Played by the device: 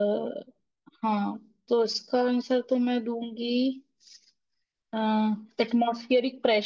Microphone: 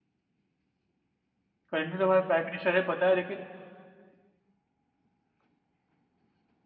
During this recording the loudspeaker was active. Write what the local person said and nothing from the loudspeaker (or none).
करेंटली तो हमारे प्राइम मिनिस्टर है पता है लेकिन